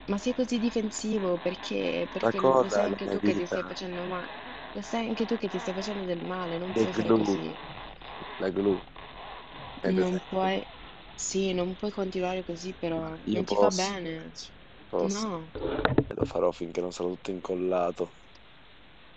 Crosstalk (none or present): present